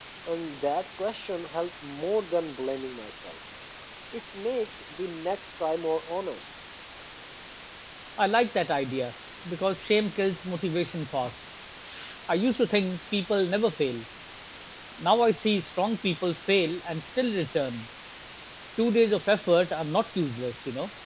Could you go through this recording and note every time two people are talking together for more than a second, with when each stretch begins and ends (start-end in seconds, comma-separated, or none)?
none